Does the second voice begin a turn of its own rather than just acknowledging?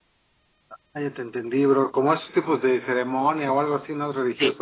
Yes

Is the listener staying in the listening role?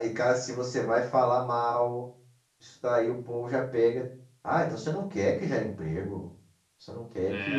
No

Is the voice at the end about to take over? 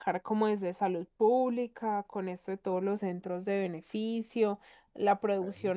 No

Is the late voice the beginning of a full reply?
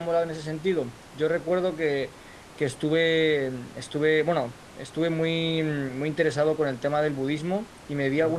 No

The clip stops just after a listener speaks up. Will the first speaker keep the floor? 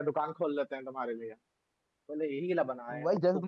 No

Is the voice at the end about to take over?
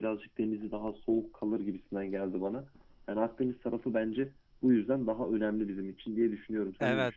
Yes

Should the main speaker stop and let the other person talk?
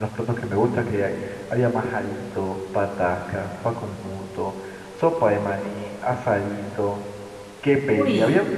No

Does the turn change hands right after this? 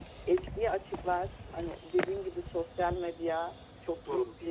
No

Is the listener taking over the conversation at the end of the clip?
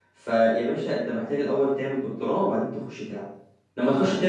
No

